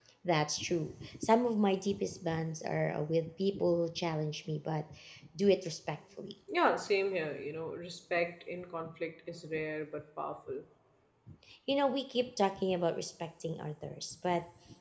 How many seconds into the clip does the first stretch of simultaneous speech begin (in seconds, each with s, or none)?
none